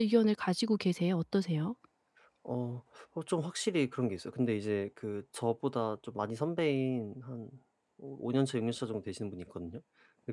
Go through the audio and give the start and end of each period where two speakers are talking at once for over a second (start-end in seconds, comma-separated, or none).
none